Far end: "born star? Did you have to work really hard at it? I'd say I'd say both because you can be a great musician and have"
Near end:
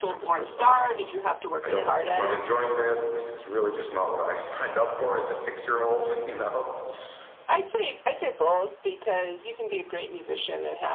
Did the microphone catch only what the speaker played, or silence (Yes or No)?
No